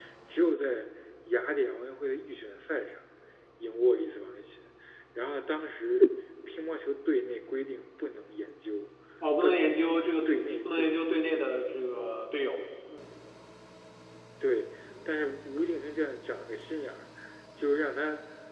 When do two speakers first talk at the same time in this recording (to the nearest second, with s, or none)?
9 s